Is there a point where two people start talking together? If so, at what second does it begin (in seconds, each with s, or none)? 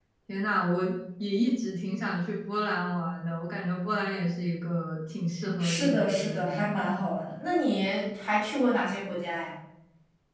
5.6 s